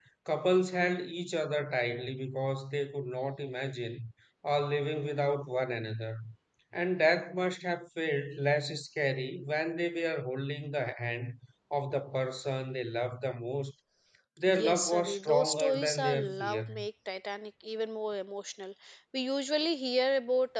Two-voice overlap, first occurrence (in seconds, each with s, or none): 14.5 s